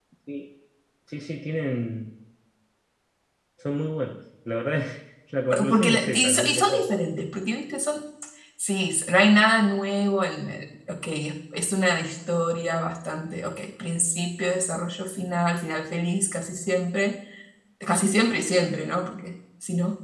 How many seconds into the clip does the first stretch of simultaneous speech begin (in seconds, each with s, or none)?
5.5 s